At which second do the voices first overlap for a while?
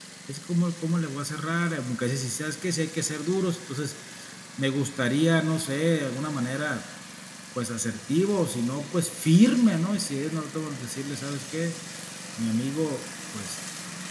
none

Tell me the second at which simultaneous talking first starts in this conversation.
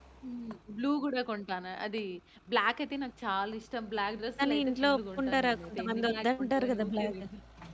4.4 s

